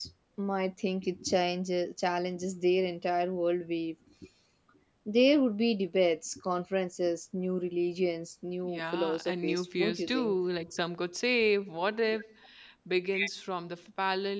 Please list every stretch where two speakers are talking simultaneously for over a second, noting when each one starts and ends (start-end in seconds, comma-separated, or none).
8.6-10.3